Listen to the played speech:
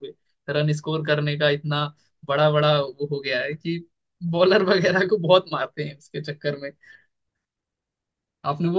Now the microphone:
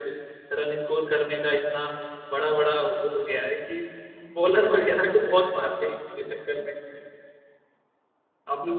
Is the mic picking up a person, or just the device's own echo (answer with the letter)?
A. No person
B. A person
A